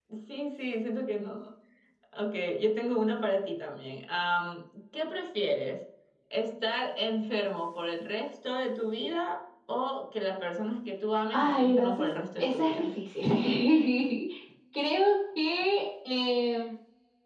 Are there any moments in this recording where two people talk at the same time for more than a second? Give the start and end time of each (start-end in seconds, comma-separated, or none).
11.3-12.9